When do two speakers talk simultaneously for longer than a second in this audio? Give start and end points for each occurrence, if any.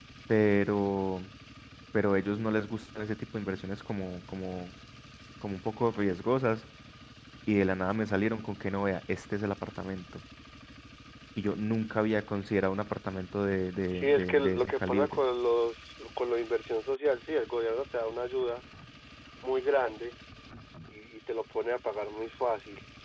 13.9-15.2

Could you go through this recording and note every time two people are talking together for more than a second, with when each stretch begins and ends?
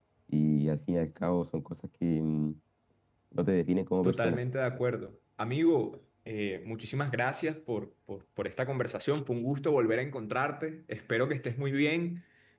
none

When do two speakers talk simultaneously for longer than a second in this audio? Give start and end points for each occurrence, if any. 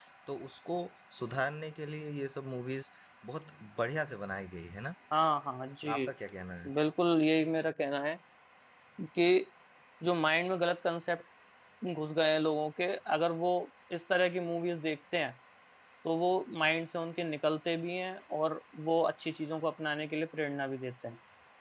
none

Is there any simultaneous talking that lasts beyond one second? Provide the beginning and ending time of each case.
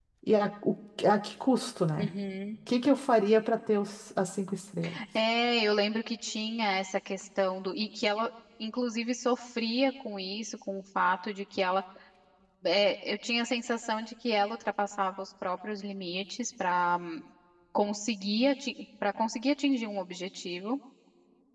none

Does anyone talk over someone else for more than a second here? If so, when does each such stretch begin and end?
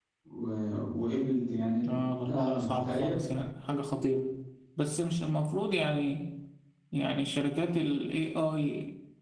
1.8-3.3

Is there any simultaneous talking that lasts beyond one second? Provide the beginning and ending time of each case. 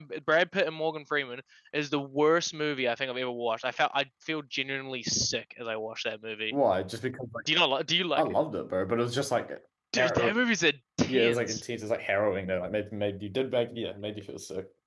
none

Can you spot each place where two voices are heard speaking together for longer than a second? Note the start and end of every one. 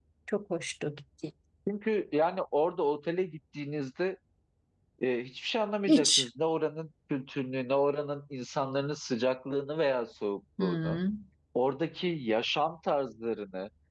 none

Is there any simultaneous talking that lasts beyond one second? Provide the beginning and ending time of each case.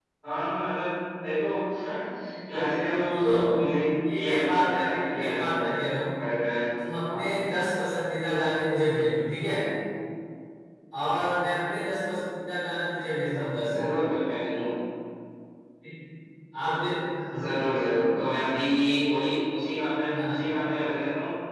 4.1-5.7

